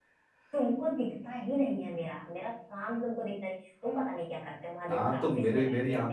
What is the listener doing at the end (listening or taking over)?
taking over